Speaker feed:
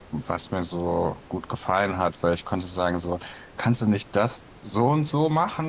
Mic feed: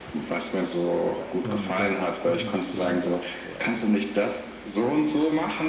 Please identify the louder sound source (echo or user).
echo